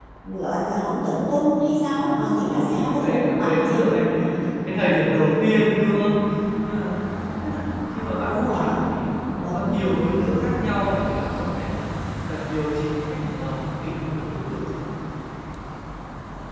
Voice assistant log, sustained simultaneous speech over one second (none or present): present